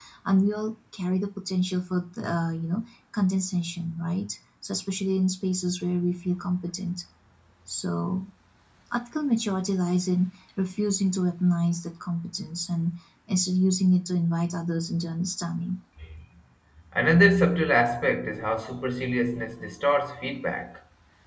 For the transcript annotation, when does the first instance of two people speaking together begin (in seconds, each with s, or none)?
none